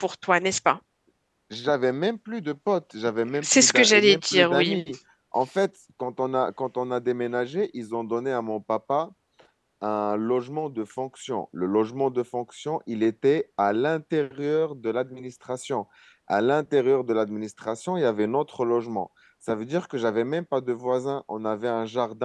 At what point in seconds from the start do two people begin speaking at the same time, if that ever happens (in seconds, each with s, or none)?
3.3 s